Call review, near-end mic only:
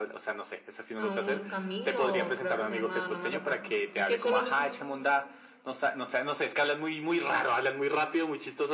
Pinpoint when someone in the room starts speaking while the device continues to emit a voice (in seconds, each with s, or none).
1.0 s